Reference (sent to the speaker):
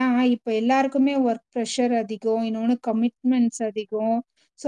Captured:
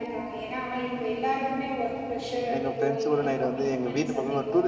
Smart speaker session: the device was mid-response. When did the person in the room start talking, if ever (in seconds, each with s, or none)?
2.6 s